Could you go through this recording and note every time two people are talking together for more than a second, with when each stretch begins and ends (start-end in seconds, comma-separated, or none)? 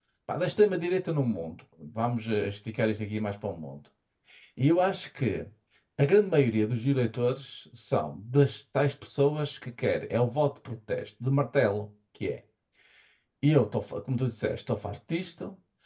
none